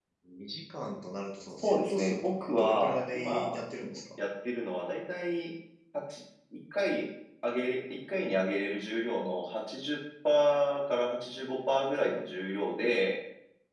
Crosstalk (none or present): present